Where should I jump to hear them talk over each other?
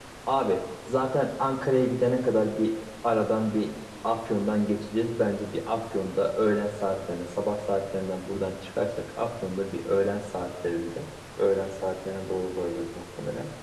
none

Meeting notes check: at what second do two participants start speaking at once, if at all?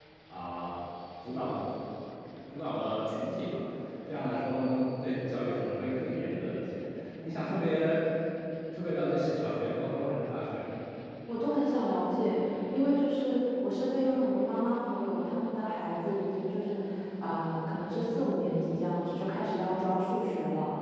none

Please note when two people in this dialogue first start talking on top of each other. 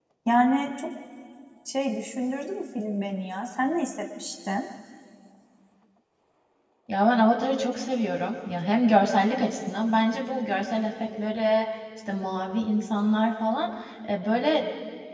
none

